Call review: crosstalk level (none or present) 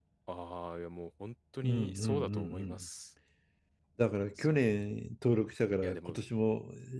present